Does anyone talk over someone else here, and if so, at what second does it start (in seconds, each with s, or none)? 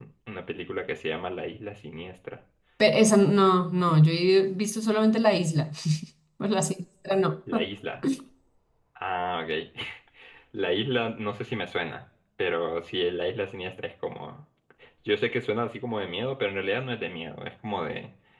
none